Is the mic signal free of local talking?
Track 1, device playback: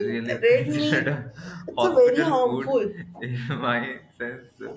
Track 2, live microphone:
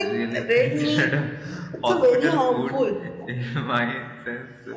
Yes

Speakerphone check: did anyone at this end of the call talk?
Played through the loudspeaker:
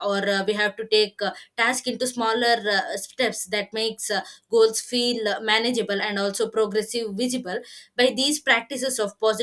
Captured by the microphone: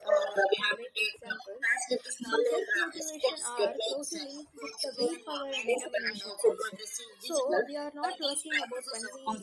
Yes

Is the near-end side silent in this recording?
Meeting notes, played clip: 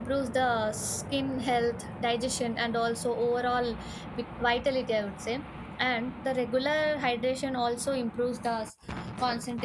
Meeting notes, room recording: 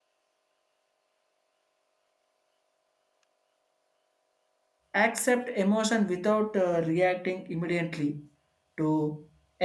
No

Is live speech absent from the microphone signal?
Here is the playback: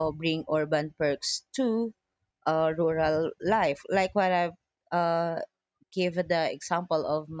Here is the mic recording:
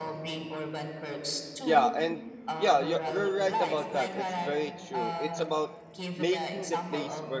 No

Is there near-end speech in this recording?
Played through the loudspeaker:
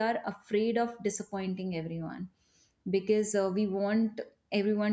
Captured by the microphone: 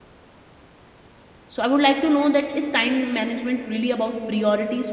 Yes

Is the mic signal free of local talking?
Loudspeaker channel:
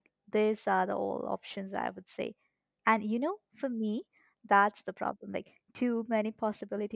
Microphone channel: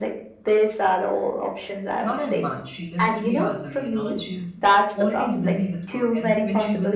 No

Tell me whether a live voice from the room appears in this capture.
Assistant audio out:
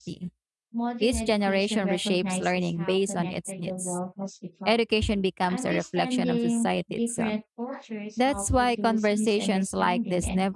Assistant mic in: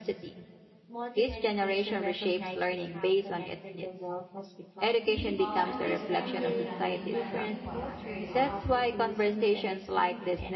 Yes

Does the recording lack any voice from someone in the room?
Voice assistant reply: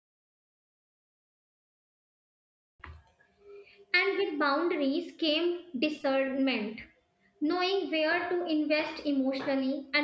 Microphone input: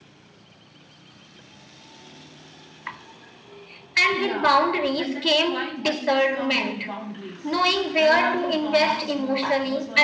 No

